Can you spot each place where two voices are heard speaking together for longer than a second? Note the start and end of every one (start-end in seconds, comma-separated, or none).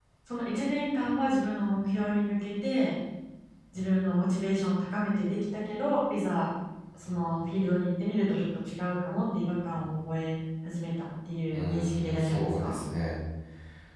11.5-12.7